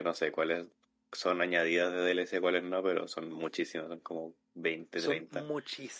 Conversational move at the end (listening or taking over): taking over